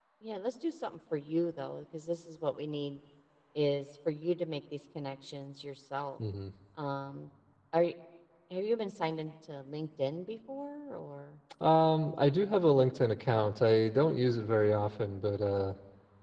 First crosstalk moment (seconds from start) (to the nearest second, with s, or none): none